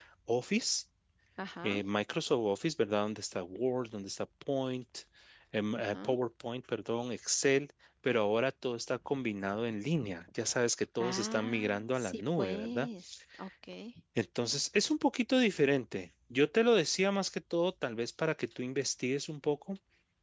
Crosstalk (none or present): present